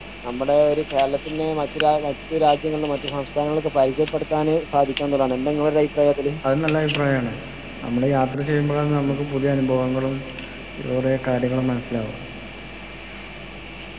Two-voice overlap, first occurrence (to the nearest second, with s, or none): none